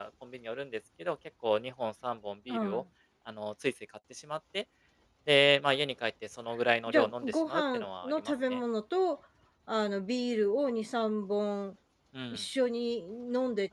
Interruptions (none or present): present